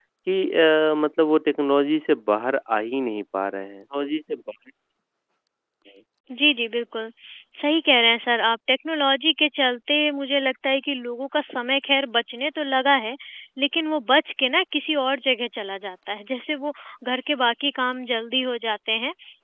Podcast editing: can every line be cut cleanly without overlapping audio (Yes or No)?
Yes